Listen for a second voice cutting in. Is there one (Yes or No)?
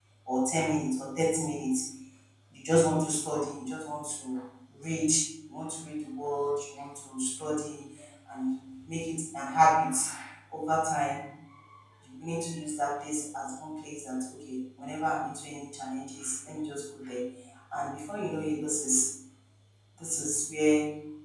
No